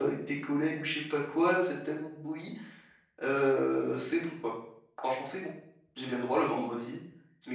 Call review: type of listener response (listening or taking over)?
listening